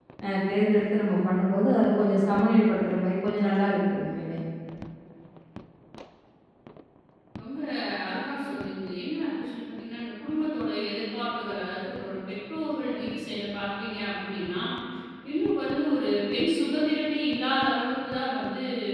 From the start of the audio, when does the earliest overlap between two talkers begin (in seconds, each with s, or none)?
none